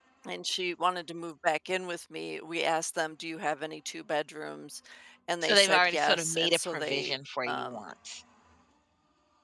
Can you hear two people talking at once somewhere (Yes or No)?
Yes